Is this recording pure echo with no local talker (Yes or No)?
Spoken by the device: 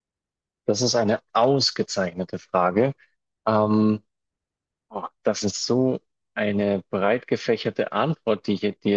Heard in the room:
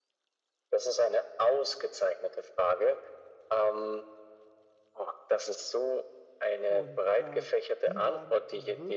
No